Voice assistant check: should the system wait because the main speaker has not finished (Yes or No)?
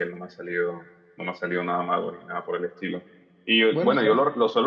Yes